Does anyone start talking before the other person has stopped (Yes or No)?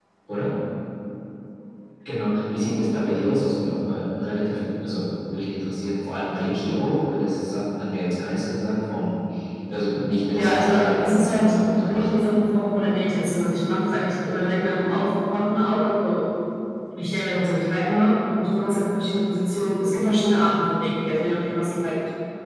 Yes